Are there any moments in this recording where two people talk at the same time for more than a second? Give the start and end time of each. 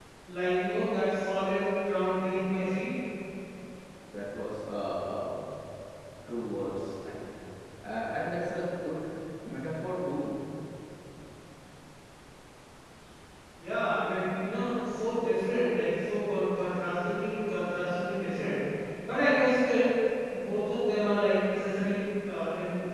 none

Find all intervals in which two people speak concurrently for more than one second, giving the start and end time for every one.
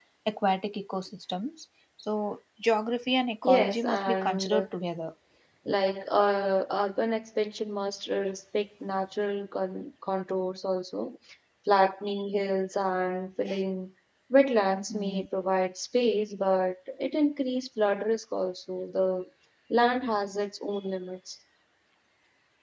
3.4-4.7

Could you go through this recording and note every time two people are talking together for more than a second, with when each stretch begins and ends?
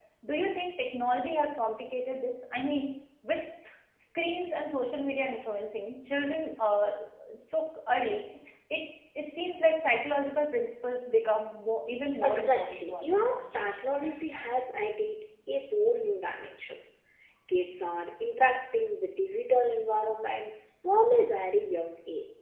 12.2-13.5

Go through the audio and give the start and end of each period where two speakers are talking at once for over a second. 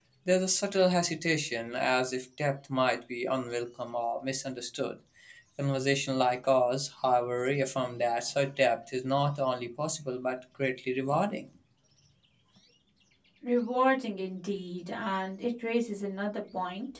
none

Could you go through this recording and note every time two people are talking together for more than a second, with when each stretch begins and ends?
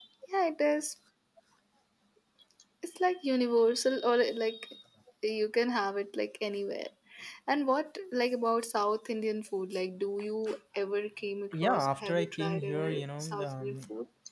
11.5-13.8

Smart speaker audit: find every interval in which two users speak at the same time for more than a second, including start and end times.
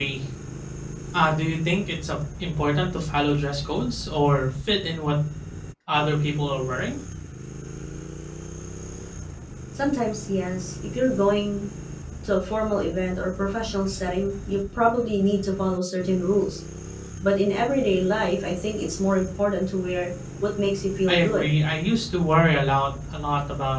none

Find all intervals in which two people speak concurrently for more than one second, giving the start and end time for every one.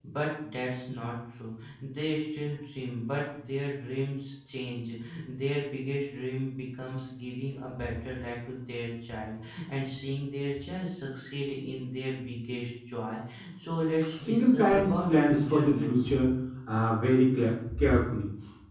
14.1-16.1

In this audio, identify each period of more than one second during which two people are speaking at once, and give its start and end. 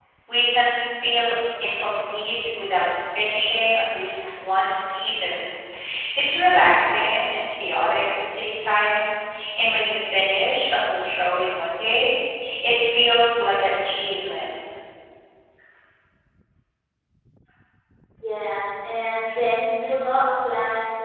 none

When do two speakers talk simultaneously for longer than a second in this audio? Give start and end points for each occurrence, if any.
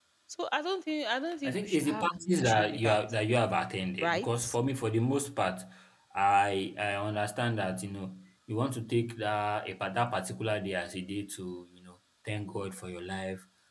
1.5-3.0

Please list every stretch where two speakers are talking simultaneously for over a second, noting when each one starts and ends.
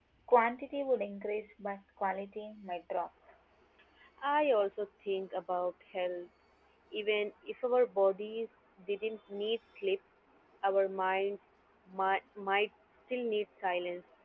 none

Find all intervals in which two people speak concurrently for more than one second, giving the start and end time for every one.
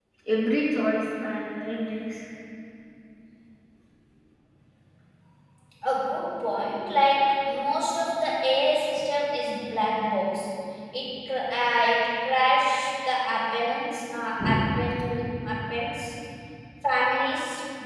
none

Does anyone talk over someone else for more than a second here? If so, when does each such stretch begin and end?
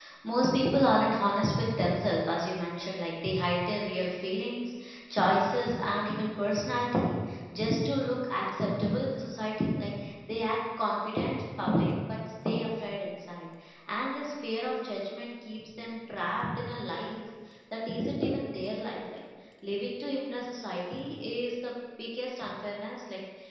none

